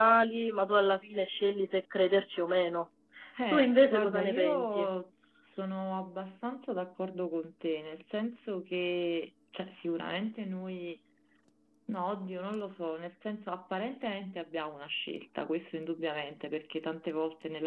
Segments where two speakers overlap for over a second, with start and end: 3.5-4.9

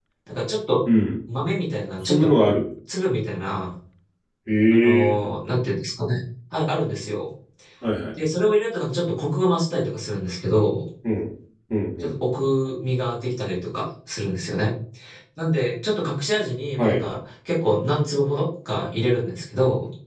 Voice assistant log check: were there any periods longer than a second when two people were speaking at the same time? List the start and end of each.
none

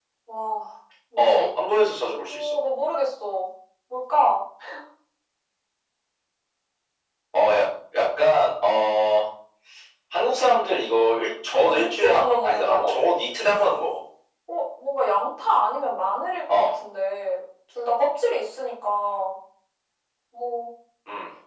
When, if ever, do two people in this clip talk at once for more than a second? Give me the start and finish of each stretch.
11.5-12.9

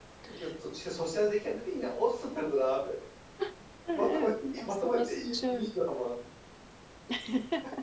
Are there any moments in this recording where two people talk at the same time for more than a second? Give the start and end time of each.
3.9-5.7

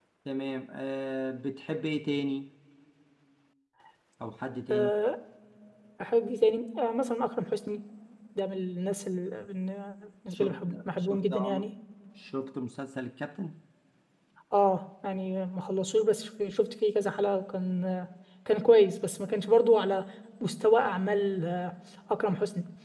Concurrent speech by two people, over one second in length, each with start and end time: 10.3-11.6

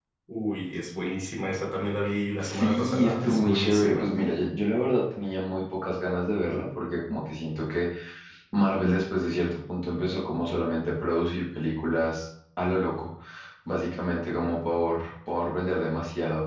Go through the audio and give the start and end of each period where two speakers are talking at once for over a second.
2.4-4.1

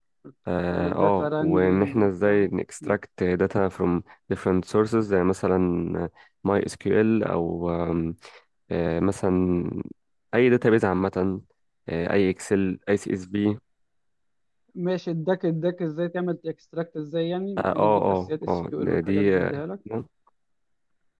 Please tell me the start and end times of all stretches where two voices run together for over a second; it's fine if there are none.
0.7-2.4, 17.6-19.6

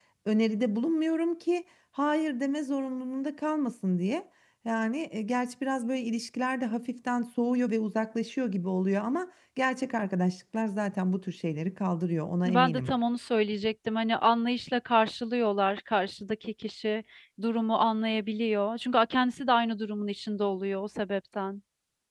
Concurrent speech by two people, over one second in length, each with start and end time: none

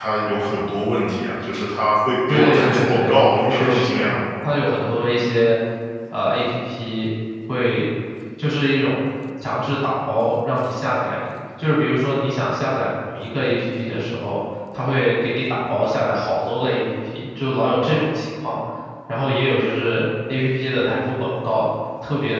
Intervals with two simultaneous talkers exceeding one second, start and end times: 2.3-4.1

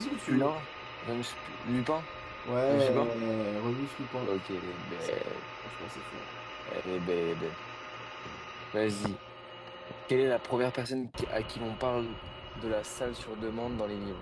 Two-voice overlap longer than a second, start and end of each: none

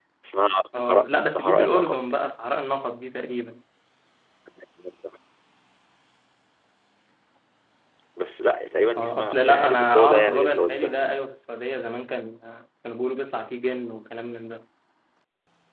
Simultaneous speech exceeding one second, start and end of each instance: 0.7-2.0, 9.0-11.1

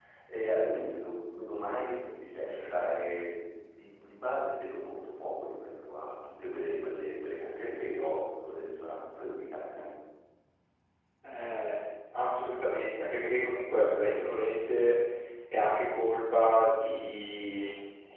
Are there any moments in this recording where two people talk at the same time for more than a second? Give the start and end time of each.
none

